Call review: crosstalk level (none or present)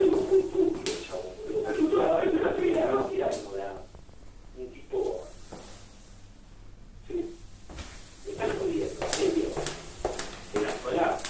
present